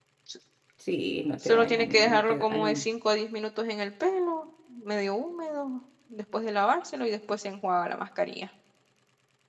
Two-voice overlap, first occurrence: 1.4 s

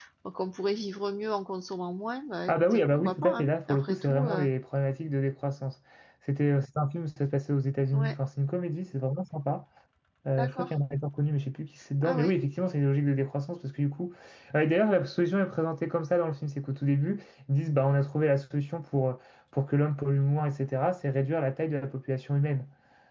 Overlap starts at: 2.5 s

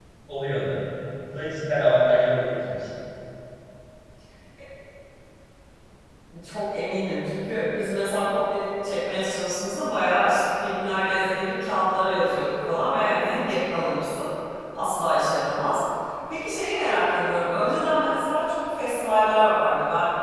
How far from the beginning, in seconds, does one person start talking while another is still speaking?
none

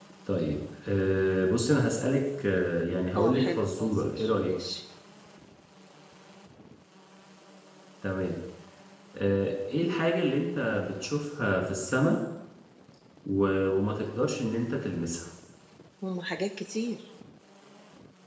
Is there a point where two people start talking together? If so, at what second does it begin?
3.1 s

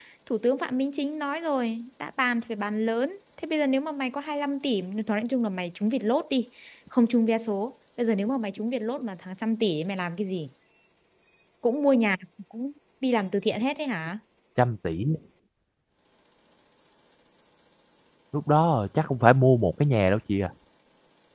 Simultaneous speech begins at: none

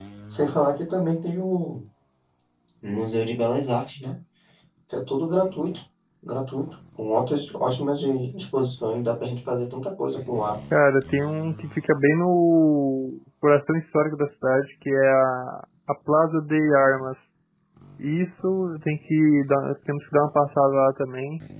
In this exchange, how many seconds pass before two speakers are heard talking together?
none

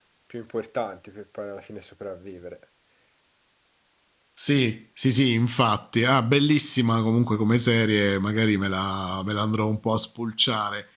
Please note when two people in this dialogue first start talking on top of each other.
none

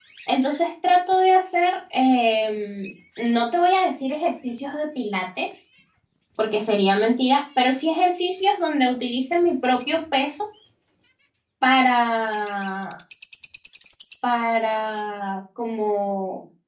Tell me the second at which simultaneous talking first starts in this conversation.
none

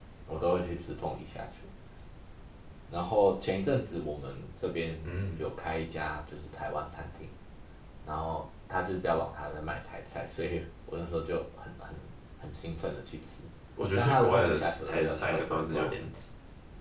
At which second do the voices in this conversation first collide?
14.0 s

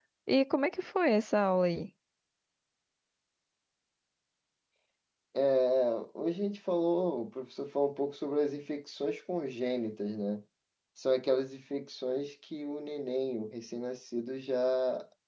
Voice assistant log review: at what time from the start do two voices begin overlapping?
none

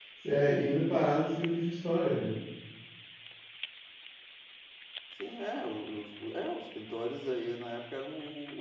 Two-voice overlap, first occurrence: none

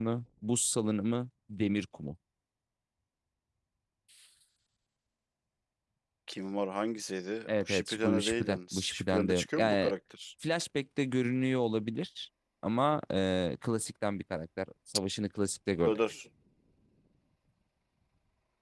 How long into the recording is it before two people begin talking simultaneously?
7.5 s

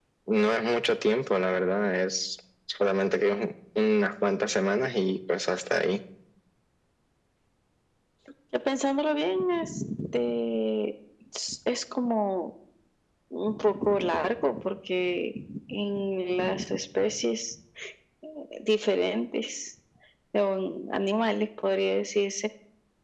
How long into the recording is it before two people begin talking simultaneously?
none

